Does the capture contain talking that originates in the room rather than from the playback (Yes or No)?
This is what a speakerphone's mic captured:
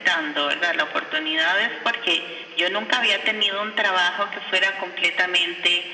No